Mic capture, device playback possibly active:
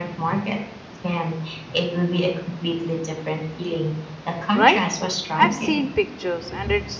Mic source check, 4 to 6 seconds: both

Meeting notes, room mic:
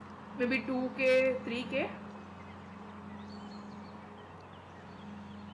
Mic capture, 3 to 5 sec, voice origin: neither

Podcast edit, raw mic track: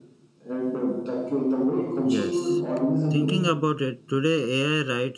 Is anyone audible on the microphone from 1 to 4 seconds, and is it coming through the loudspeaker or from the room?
both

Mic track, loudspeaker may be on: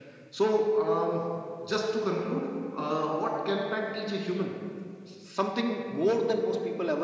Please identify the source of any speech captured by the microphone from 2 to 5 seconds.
echo only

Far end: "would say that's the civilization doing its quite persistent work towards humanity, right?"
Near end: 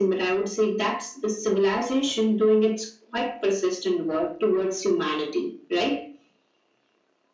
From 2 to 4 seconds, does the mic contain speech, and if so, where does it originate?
echo only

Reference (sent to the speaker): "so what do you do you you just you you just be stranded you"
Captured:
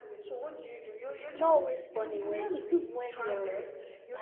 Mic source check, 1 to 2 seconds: both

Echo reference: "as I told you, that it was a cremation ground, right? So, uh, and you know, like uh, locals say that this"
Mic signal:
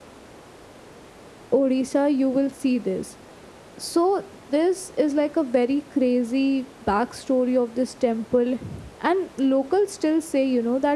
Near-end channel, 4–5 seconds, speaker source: user only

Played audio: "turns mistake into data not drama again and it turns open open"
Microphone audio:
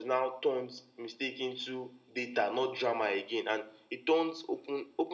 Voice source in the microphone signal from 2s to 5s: echo only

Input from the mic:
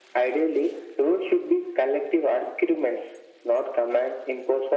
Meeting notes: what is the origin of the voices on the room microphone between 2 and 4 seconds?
echo only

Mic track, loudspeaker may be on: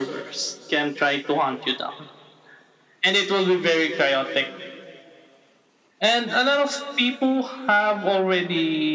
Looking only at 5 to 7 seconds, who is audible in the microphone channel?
echo only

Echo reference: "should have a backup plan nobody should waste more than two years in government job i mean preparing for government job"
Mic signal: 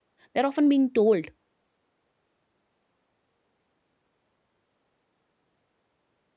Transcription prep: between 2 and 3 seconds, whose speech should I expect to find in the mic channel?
neither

